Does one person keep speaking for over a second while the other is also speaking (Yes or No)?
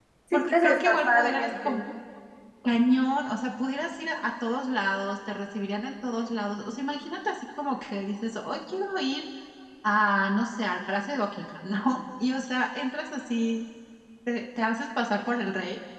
Yes